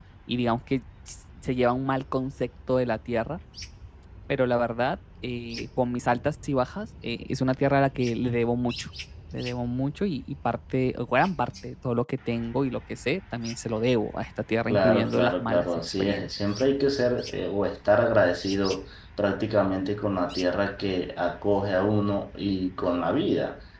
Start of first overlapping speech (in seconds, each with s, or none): 14.7 s